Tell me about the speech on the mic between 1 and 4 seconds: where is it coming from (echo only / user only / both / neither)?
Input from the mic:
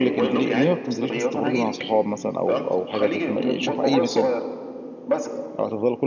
both